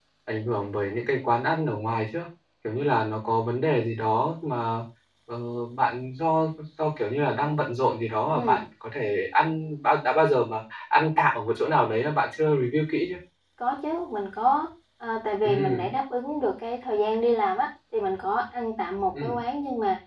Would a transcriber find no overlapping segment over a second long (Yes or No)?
Yes